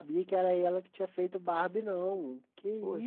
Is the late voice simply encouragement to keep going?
No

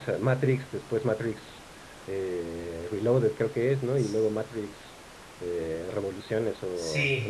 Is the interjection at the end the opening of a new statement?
Yes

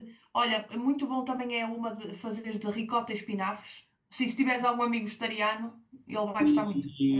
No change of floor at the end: No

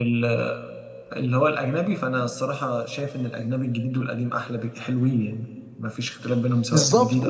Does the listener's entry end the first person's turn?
Yes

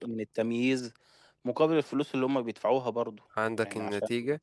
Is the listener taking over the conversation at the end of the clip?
Yes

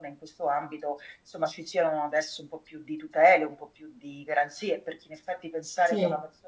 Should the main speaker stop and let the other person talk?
No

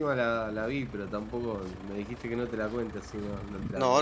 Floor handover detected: Yes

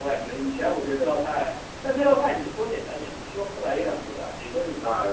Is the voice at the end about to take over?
No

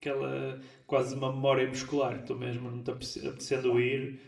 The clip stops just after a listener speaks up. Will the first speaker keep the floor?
Yes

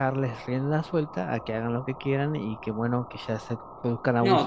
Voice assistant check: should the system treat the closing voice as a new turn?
Yes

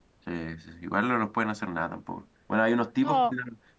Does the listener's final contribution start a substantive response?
No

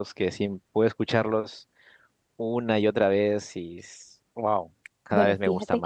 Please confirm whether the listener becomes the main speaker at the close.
Yes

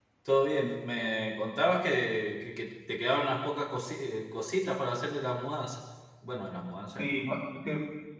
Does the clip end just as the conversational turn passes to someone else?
Yes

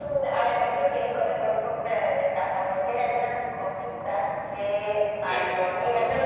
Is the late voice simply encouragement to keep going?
Yes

